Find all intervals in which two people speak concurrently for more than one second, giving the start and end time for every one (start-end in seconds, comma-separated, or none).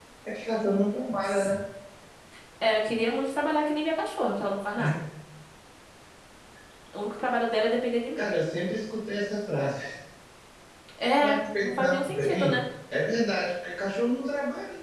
11.2-12.6